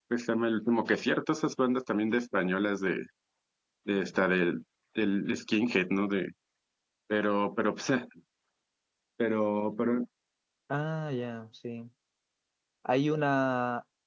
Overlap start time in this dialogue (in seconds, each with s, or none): none